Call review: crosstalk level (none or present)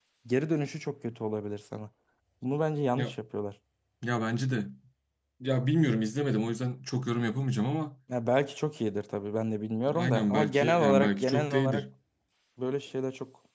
present